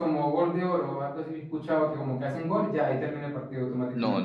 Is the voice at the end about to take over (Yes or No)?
Yes